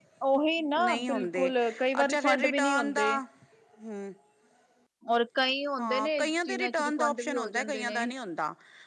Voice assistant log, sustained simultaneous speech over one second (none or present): present